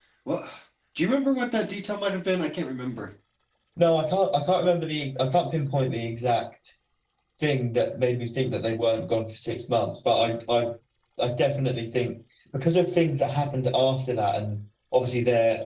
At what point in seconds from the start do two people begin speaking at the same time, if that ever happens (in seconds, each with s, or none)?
none